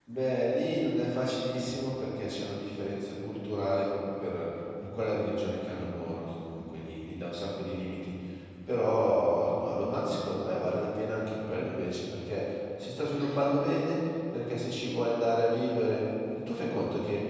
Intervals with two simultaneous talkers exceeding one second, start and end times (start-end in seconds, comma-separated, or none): none